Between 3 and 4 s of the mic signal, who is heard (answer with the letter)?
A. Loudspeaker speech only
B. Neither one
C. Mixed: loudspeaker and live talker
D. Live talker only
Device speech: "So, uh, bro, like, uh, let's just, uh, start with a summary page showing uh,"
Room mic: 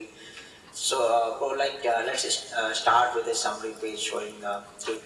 A